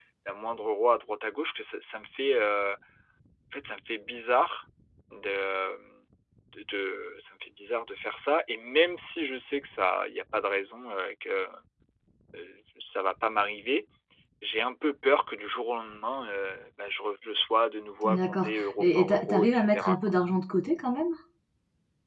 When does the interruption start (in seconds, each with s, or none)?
18.0 s